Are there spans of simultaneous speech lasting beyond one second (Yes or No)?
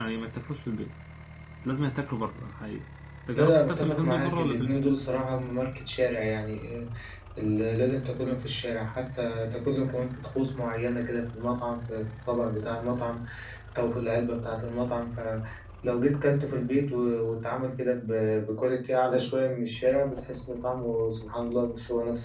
Yes